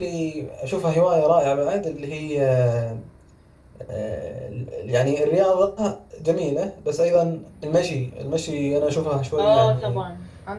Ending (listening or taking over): taking over